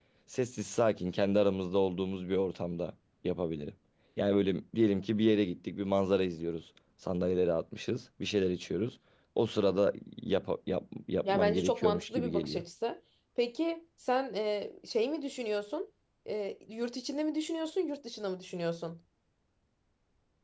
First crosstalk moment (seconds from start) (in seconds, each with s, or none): 11.2 s